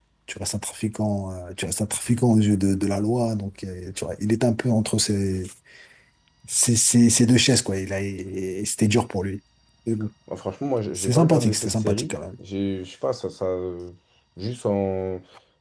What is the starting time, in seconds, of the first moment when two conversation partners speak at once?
11.0 s

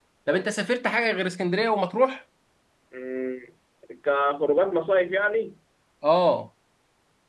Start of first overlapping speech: none

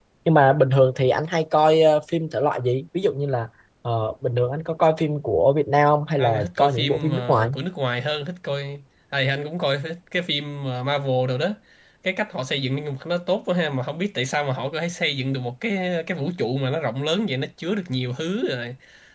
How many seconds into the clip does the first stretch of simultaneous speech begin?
6.2 s

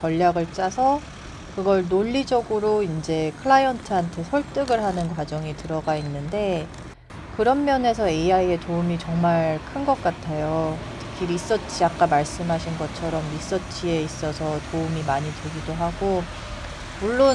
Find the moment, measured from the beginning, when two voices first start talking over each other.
none

